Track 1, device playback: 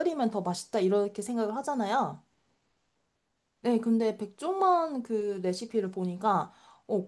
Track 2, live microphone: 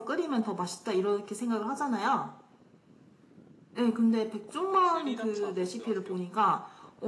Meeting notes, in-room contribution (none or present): present